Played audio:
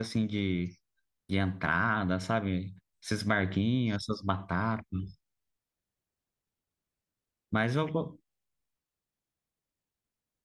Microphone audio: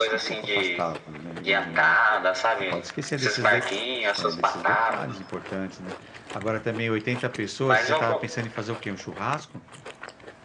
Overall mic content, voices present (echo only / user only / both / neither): both